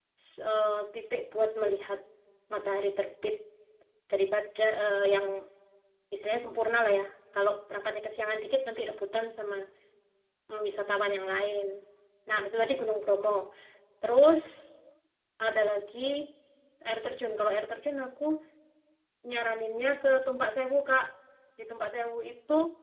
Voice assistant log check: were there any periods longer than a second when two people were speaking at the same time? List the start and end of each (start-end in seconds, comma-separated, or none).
none